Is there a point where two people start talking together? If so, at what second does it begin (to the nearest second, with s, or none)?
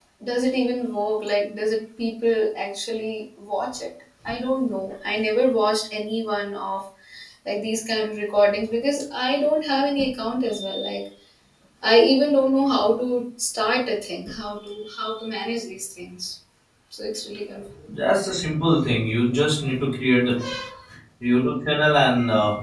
none